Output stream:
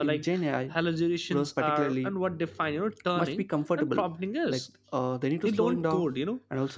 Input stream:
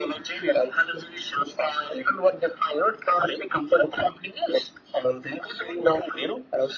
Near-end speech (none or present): none